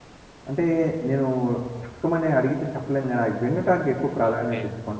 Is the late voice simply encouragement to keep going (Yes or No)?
No